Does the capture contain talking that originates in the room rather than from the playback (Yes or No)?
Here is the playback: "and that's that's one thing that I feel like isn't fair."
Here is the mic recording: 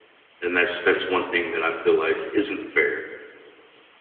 No